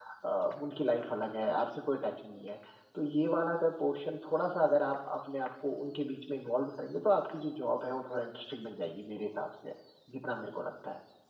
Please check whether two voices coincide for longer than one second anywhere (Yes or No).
No